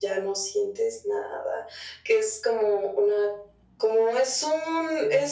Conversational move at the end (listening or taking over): listening